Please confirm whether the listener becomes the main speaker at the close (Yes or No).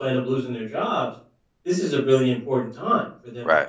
No